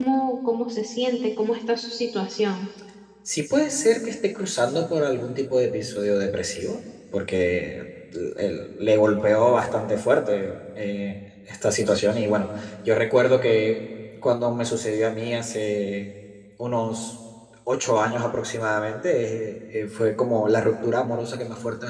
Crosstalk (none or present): none